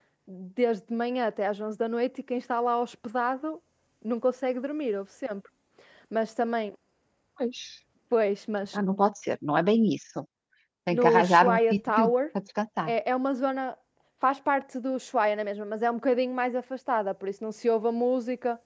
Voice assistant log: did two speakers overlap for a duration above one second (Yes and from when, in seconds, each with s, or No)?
Yes, from 10.9 s